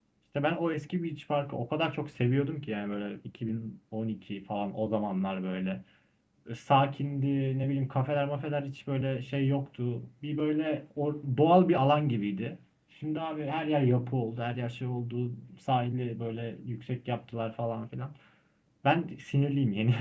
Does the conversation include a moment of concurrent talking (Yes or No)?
No